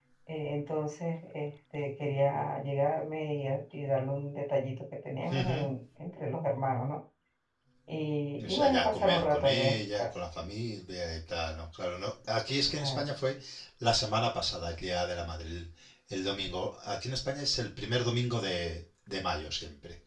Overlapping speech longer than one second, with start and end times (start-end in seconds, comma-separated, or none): 8.4-10.1